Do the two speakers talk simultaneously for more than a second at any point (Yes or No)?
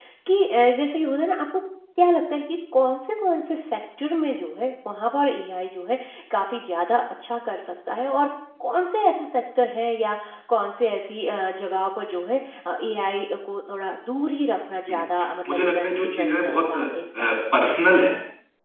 Yes